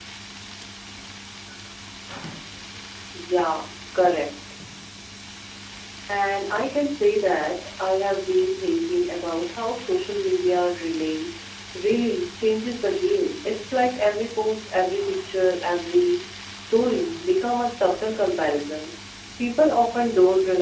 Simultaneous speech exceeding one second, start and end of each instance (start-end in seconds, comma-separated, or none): none